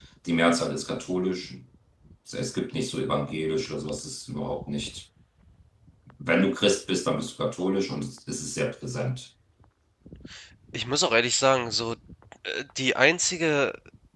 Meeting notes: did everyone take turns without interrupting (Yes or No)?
Yes